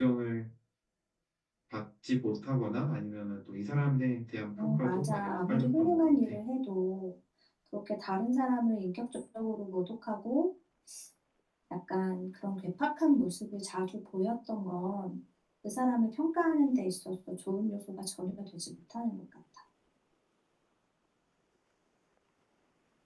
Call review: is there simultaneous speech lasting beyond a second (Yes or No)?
Yes